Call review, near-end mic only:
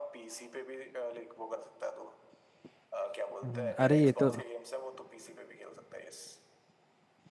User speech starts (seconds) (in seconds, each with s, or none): 3.4 s